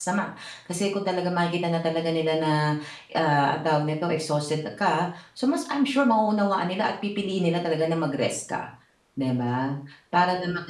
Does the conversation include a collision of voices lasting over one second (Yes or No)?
No